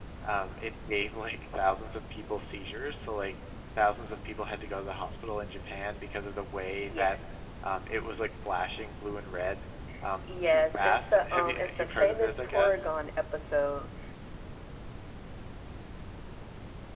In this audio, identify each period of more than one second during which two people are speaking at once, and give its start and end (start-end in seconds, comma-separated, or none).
10.3-12.8